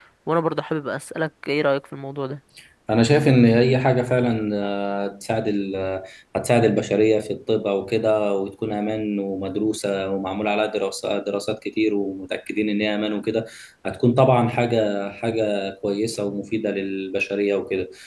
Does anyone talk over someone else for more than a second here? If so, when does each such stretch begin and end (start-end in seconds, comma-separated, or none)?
none